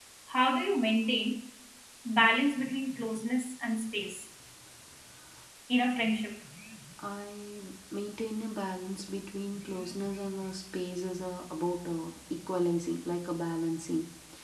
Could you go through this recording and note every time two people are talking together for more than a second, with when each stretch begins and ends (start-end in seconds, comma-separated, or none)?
none